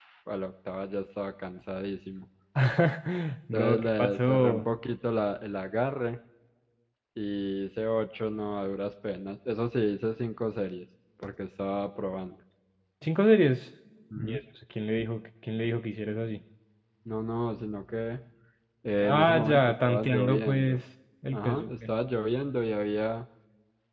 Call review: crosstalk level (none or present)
present